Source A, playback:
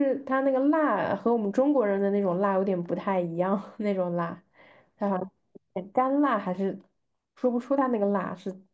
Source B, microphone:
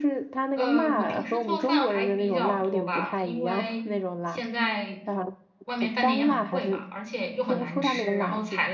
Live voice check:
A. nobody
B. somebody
B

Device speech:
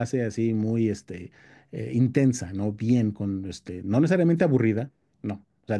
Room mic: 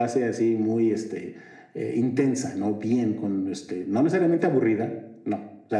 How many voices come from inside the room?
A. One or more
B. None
B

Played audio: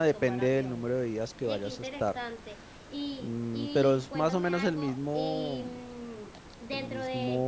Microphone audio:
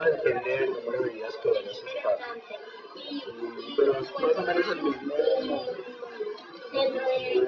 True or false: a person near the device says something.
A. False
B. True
A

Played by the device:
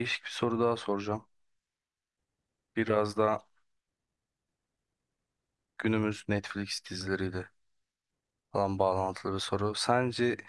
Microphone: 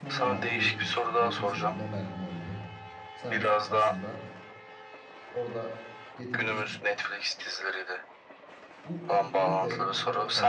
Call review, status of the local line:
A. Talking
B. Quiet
A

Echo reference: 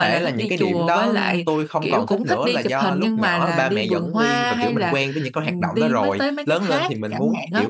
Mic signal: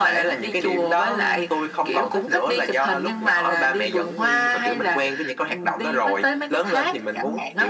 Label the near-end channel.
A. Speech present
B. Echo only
B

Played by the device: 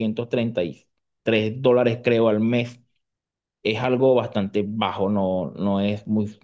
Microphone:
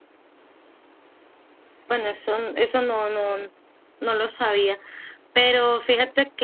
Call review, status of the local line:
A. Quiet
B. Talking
B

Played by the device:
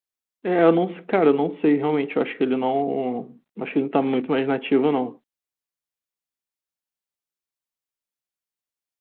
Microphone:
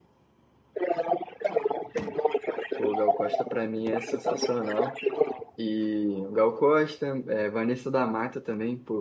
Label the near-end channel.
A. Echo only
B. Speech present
B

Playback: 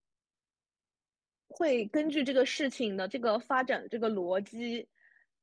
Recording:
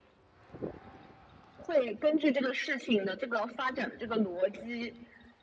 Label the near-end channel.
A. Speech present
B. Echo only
B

